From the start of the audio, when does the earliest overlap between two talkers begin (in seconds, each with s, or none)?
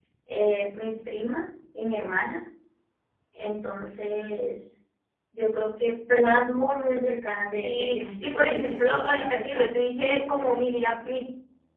7.5 s